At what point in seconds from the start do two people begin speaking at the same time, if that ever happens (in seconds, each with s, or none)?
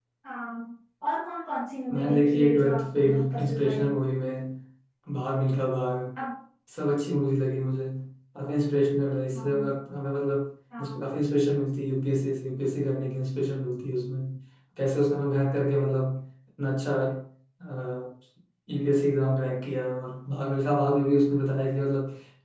1.9 s